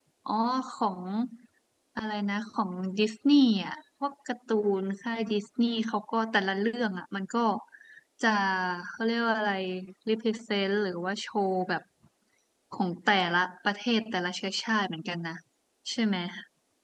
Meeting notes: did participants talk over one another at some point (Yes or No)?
No